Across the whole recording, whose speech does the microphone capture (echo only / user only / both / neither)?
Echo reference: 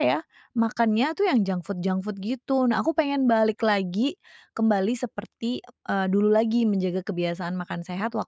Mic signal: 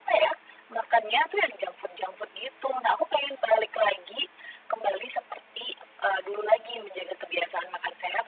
echo only